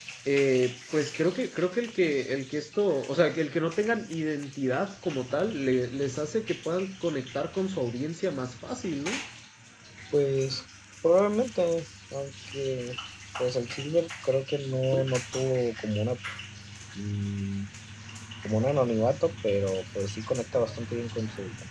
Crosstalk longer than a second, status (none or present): none